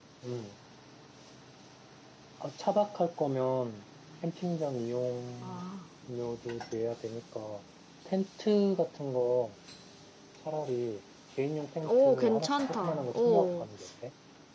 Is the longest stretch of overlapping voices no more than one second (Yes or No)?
No